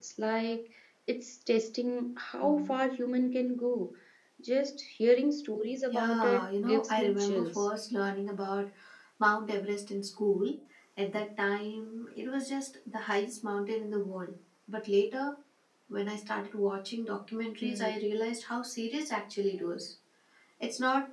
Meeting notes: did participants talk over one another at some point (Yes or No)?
Yes